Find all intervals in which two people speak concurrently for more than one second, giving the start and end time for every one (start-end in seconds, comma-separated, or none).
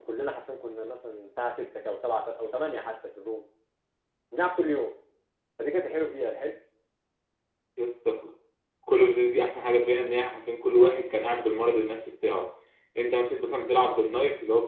none